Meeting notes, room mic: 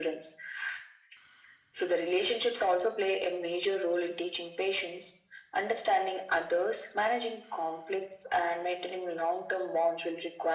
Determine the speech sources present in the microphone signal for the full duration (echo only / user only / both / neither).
echo only